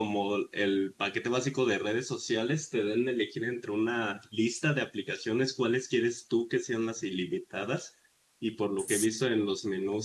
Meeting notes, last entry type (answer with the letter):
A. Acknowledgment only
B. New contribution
A